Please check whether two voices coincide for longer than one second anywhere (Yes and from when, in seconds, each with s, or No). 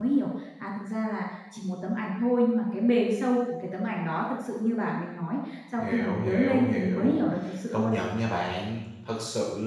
Yes, from 5.8 s